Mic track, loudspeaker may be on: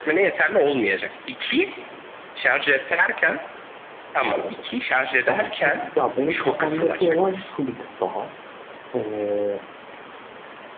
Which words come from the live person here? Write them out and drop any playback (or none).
Evet. Abi peki ya benim kafamdaki olay şu bir tık daha. Ee,